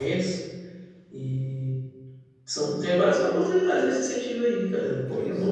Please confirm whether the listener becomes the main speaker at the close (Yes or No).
Yes